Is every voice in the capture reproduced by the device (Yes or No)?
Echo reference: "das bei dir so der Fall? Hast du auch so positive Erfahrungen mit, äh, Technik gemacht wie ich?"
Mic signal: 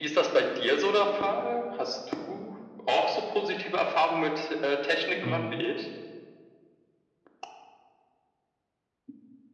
No